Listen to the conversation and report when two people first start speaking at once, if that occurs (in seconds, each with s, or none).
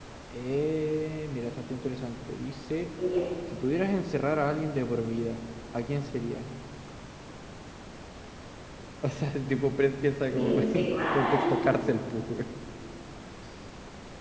10.3 s